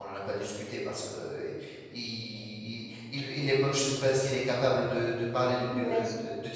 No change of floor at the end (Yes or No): Yes